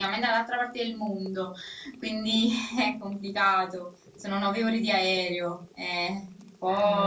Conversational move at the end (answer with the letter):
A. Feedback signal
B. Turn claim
A